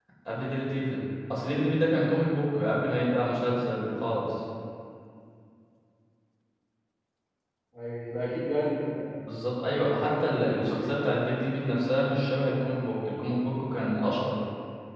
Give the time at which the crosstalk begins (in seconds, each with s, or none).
9.6 s